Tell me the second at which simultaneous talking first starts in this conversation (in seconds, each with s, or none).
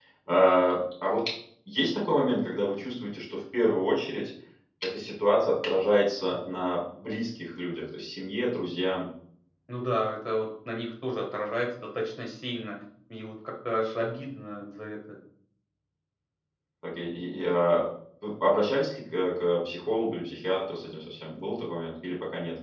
none